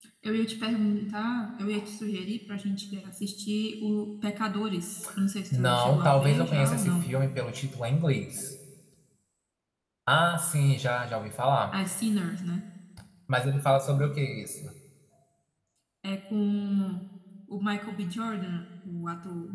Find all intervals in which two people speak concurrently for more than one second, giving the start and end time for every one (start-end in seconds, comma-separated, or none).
5.5-7.1